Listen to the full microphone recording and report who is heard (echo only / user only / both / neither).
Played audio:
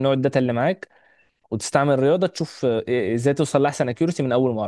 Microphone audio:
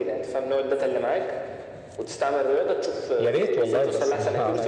both